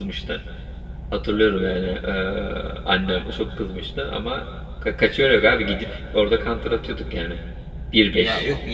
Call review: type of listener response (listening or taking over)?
taking over